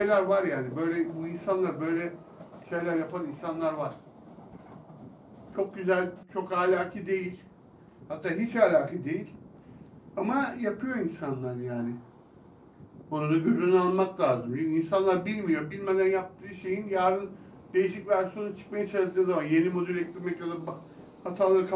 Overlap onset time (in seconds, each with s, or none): none